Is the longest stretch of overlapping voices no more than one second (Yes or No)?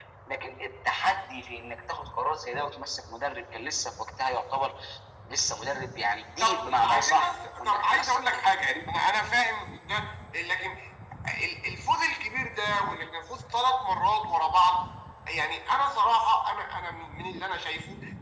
No